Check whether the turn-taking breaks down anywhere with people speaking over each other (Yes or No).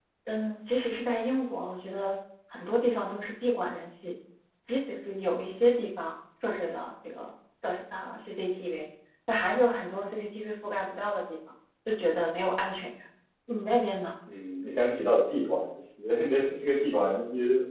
No